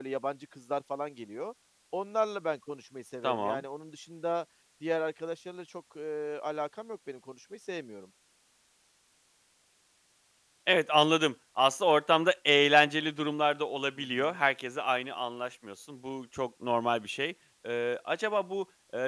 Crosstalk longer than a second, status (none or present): none